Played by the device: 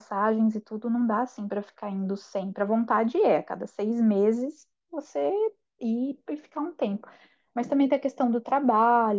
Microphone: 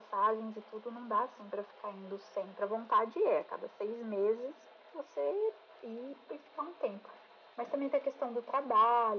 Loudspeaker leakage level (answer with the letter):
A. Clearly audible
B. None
A